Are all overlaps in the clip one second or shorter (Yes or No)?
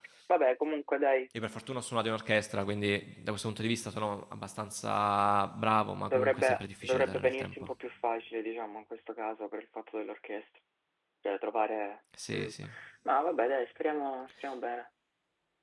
No